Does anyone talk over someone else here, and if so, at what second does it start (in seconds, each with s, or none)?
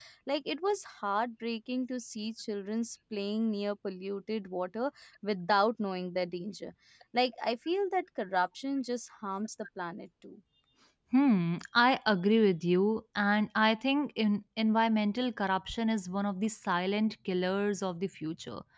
none